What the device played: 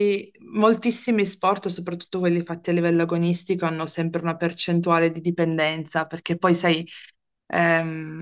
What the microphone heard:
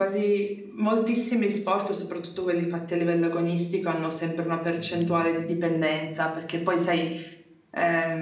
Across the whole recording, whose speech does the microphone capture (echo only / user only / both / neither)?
both